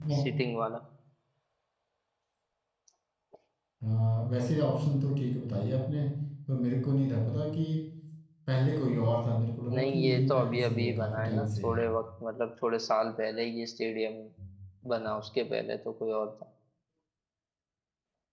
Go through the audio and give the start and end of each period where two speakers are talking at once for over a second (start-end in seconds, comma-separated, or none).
9.7-11.8